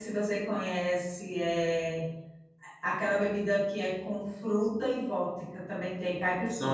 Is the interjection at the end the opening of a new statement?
Yes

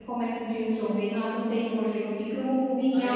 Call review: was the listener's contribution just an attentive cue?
No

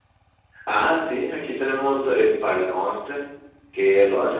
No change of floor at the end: Yes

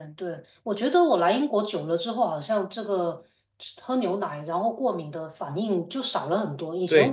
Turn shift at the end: No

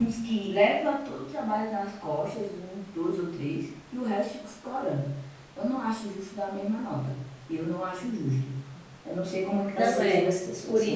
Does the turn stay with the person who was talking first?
No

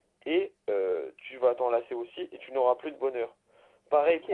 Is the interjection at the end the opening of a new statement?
Yes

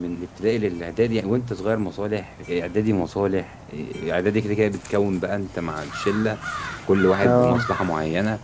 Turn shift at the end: No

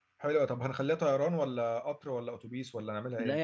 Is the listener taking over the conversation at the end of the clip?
Yes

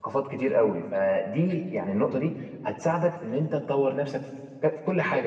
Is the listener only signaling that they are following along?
No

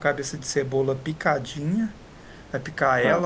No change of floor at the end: Yes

